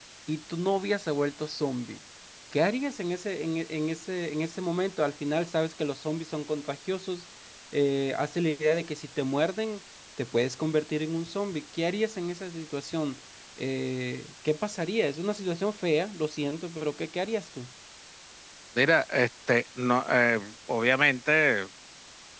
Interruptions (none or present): none